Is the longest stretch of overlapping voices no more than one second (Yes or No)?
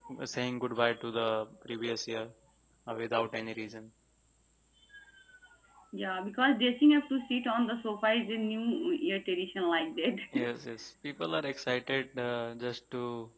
Yes